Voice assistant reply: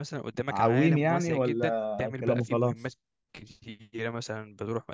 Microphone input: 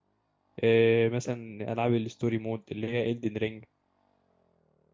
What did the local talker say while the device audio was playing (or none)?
إيه مثلا العاب الستوري مود اللي هي Elden Ring